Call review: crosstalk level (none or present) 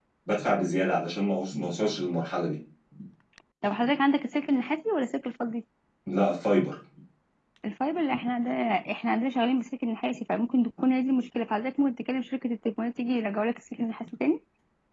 none